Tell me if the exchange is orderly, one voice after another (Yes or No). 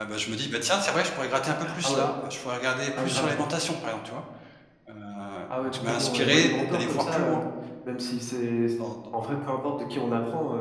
No